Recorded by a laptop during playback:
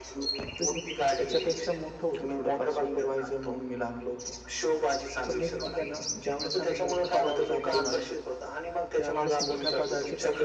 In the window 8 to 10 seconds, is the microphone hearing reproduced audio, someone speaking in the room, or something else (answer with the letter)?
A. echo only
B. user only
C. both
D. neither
C